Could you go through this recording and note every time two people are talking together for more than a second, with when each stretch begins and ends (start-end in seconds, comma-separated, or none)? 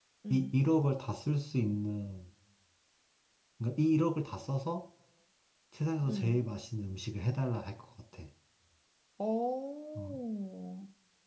none